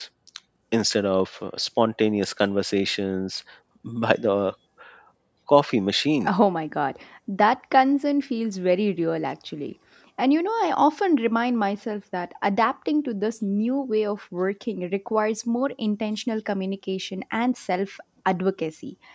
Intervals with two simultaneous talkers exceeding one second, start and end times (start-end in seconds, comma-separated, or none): none